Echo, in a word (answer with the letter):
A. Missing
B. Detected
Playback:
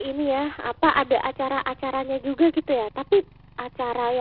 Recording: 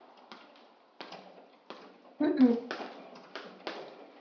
A